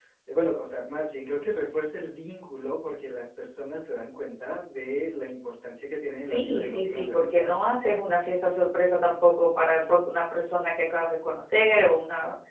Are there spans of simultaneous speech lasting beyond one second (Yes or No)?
Yes